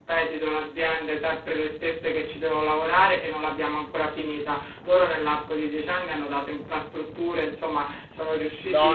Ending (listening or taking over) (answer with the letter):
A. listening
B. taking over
B